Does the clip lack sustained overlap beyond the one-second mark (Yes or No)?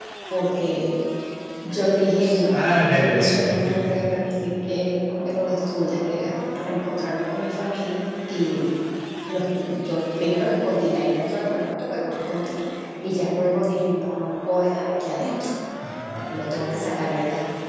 No